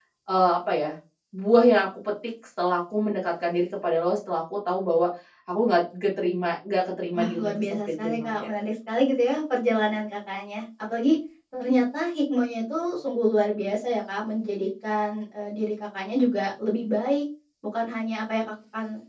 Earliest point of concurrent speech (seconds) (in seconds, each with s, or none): 7.1 s